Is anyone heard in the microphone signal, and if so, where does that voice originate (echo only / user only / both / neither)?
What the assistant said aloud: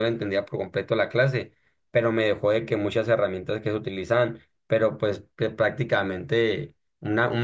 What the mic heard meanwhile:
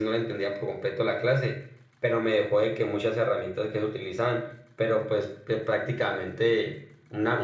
echo only